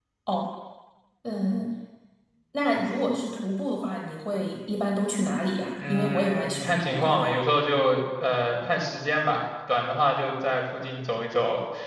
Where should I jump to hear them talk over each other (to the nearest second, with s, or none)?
6 s